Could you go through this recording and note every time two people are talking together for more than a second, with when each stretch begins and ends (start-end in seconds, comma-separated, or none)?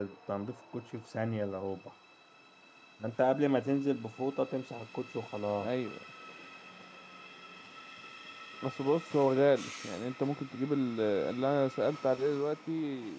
none